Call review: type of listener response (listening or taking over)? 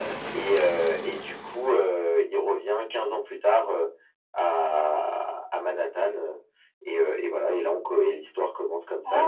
listening